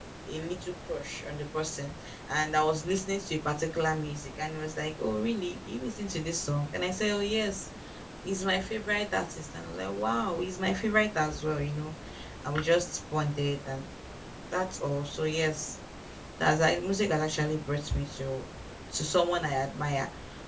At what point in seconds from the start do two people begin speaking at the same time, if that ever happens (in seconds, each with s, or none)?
none